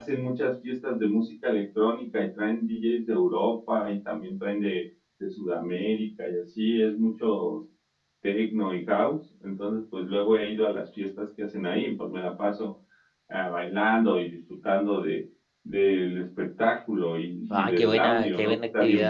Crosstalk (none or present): present